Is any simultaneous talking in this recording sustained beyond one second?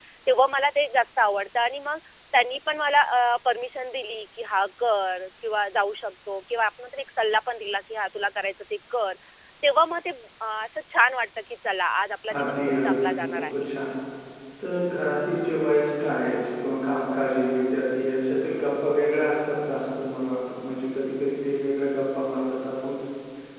Yes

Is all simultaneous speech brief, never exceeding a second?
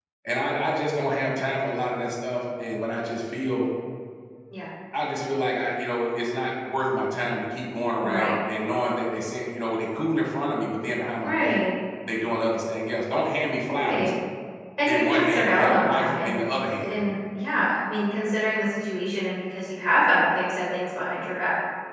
No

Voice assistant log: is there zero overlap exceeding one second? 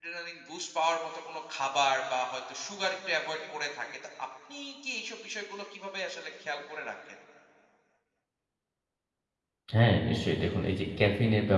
Yes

